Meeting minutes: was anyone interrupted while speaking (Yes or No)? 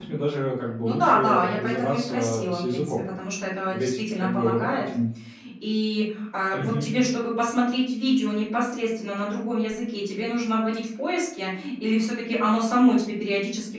Yes